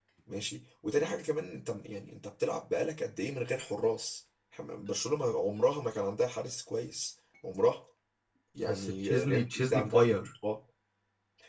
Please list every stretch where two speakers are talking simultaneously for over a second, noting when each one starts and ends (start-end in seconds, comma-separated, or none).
8.7-10.2